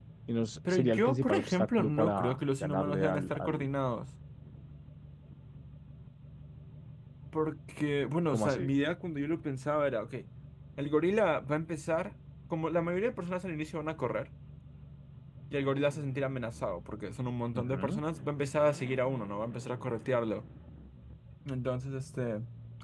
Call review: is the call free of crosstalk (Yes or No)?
No